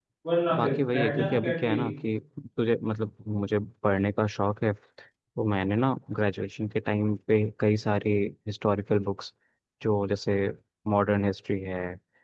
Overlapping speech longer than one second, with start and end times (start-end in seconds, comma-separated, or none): 0.6-1.9